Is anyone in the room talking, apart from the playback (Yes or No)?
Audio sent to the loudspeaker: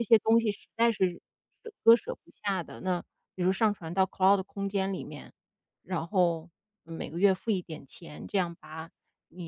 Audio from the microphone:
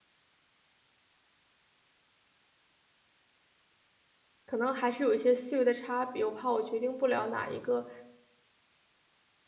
Yes